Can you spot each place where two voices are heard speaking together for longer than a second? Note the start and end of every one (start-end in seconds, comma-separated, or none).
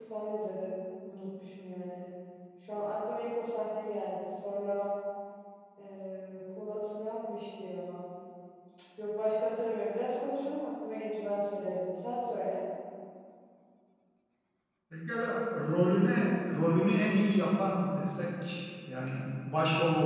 none